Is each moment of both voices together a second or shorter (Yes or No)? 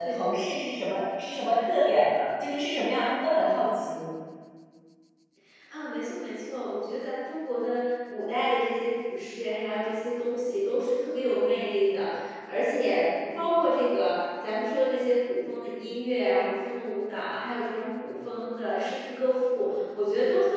Yes